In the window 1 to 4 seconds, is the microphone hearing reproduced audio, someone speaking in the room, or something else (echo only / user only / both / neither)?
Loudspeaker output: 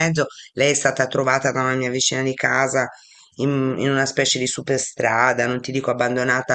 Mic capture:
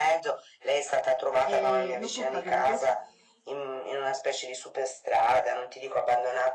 both